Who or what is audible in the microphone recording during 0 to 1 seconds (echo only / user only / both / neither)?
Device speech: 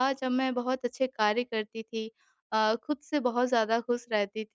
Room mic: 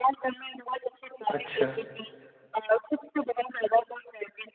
echo only